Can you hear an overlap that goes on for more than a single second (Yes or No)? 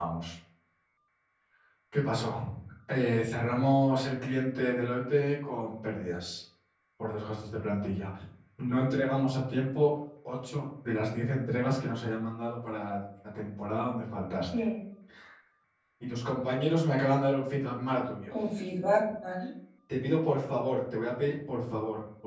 No